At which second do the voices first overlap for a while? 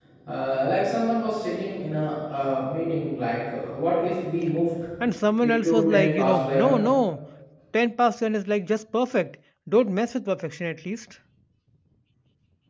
5.4 s

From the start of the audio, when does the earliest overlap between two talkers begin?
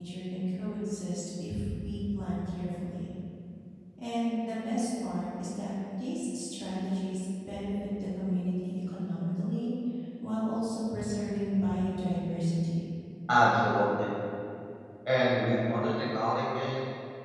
none

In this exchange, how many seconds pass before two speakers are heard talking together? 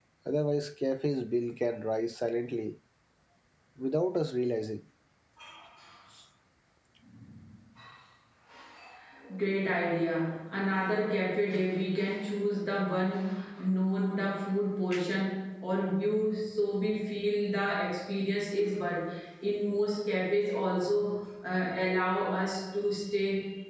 none

